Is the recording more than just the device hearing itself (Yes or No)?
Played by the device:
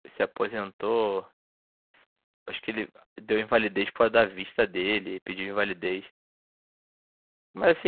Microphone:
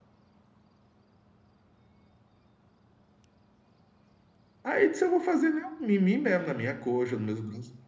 Yes